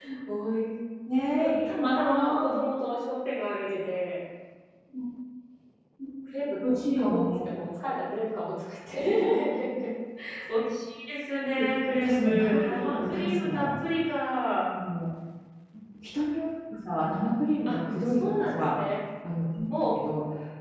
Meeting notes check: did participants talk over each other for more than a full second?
Yes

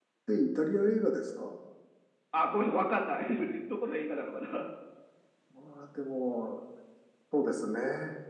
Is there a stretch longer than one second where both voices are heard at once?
No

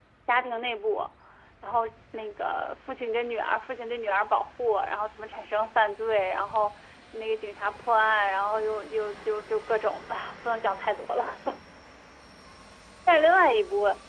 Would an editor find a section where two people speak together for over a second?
No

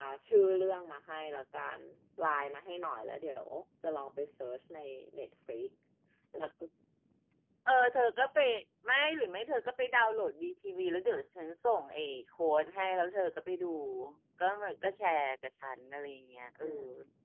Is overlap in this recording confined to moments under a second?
Yes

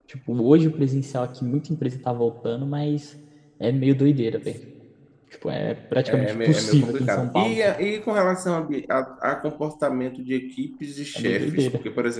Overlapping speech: Yes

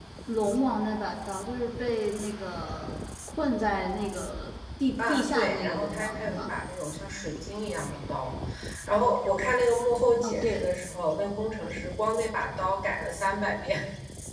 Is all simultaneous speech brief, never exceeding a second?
No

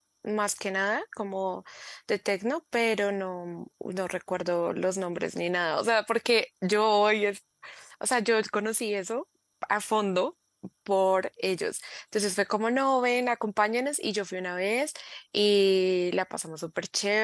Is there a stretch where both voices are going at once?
No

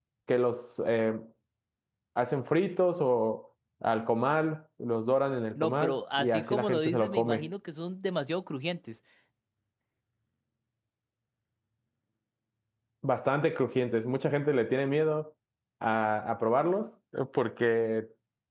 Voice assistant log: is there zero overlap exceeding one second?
No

